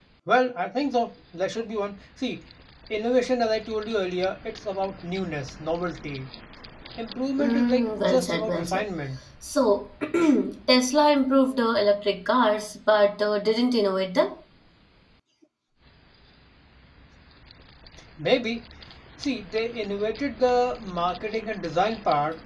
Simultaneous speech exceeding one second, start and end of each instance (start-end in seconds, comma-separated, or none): 7.4-8.8